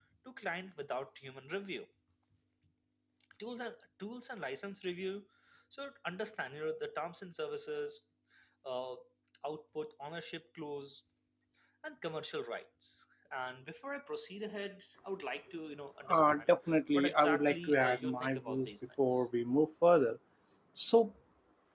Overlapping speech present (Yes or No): Yes